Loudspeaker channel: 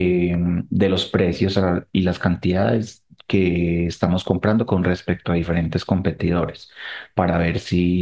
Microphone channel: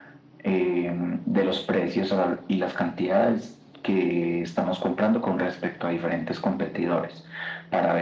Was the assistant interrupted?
No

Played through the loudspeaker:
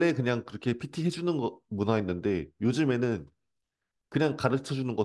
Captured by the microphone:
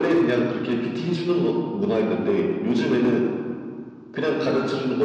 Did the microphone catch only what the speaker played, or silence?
Yes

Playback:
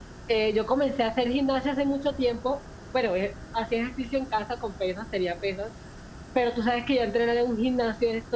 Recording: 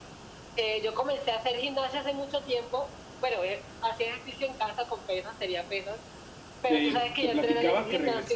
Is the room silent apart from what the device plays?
No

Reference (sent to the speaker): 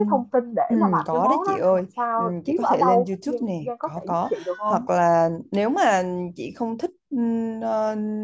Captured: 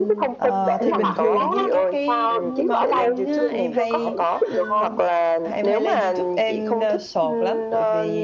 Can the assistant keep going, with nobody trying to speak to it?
No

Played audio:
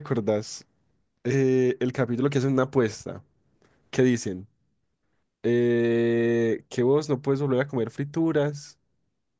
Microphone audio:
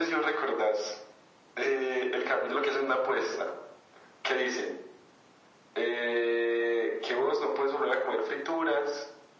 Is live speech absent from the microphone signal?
Yes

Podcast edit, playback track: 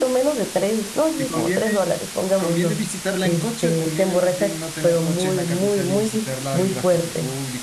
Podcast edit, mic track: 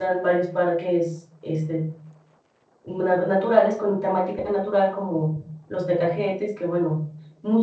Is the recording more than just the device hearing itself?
Yes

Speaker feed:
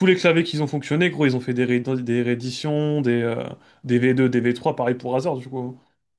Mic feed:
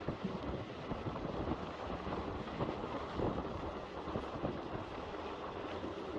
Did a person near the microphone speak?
No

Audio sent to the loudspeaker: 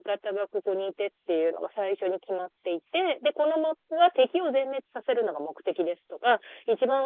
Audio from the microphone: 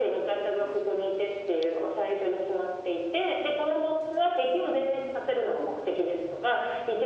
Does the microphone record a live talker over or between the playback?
No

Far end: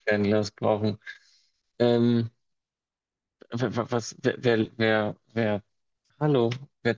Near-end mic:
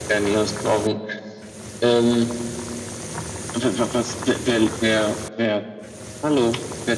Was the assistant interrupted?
No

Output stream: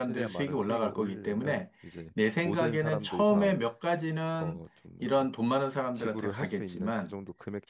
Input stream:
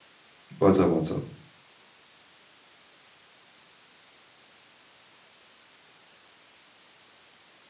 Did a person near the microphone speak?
Yes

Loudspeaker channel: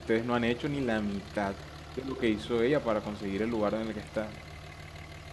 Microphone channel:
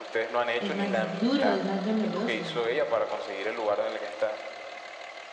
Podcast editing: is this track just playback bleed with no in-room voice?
No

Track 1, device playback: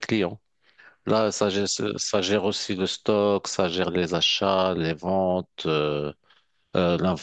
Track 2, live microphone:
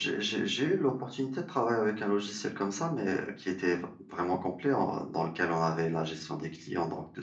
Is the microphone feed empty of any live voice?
No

